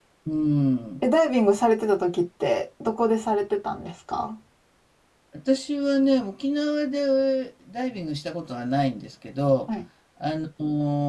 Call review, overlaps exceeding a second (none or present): none